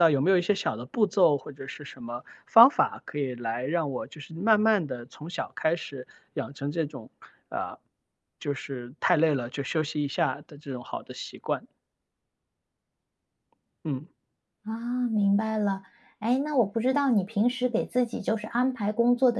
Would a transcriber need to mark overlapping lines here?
No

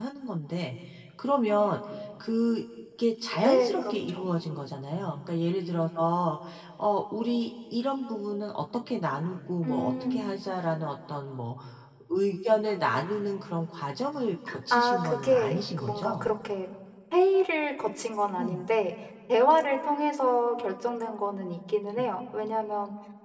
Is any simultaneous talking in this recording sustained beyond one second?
Yes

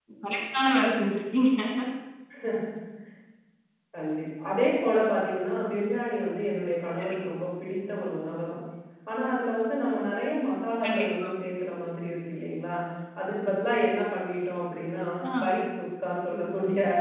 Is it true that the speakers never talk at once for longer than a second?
Yes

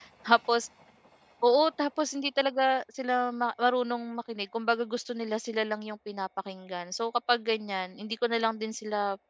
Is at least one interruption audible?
No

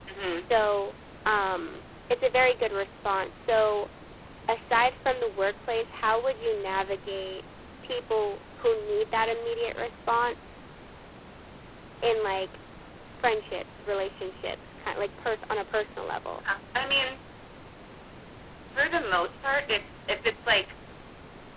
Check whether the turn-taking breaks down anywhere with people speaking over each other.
No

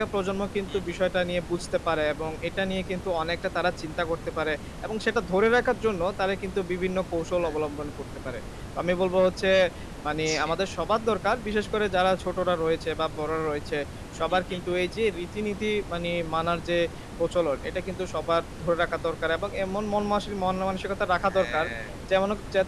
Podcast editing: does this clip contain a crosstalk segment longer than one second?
No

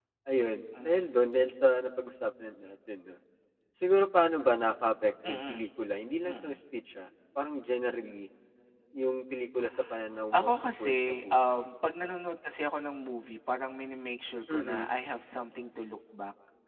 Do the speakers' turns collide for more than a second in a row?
Yes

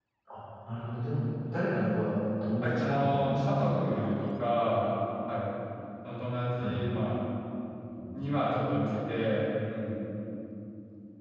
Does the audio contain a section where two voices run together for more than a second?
Yes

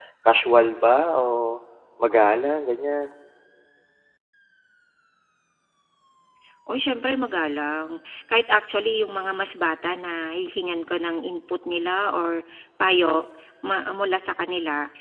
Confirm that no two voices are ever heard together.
Yes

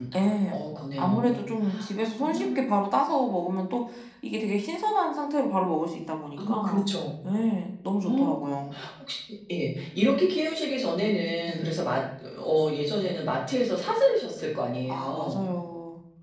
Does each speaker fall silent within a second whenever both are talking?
Yes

